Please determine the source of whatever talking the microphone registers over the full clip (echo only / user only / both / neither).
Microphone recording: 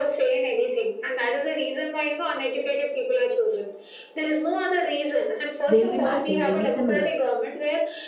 both